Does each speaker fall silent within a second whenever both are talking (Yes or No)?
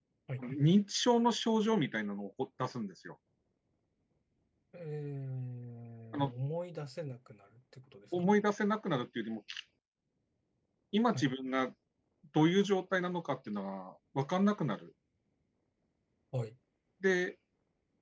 Yes